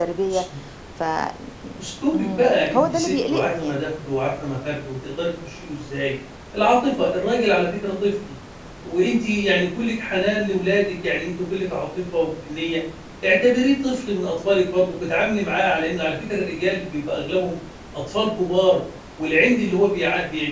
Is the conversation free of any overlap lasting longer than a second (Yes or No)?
No